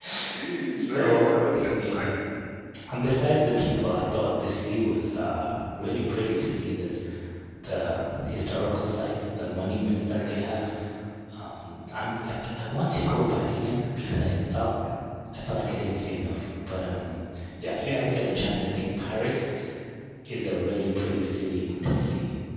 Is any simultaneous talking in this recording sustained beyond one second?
Yes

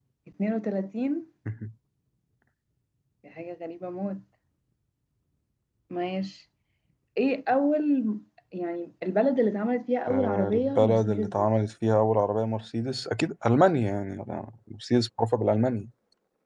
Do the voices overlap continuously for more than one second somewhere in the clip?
Yes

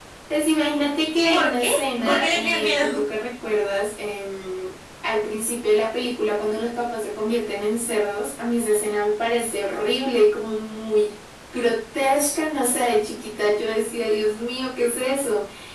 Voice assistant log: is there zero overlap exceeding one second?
No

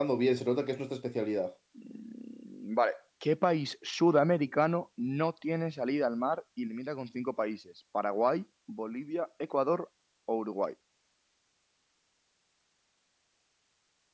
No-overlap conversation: Yes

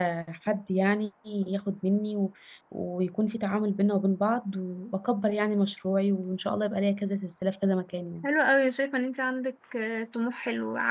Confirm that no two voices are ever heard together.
Yes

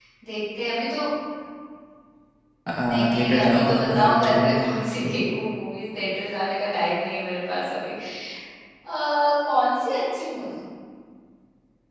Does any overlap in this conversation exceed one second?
Yes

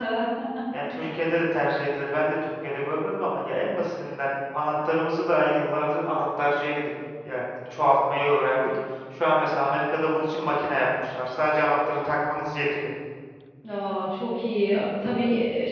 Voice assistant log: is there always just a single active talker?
Yes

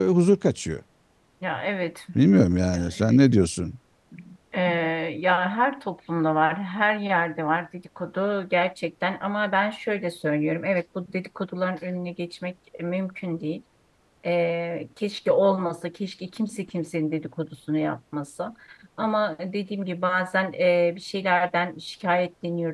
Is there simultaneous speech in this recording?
No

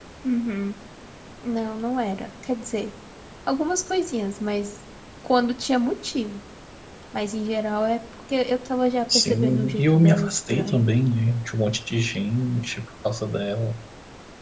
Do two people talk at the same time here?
Yes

